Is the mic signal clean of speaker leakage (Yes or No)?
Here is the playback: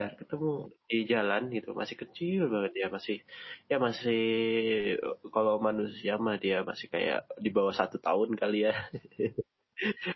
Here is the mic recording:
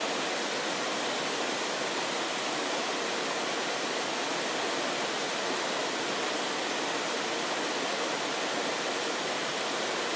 Yes